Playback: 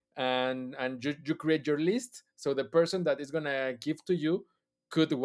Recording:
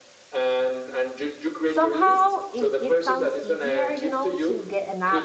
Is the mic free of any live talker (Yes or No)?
No